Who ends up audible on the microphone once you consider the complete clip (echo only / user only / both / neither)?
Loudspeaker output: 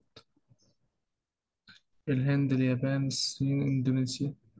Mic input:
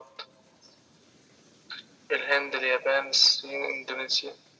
echo only